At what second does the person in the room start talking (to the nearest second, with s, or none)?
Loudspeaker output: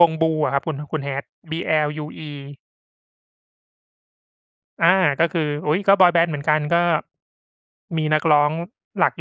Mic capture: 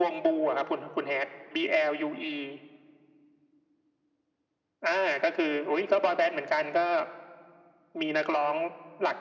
none